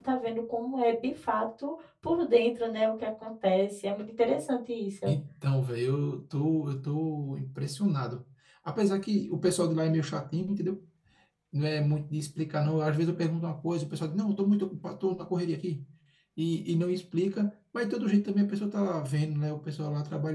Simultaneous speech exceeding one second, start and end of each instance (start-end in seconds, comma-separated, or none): none